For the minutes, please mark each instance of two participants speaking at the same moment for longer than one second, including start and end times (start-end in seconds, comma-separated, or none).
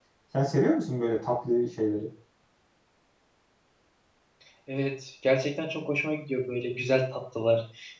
none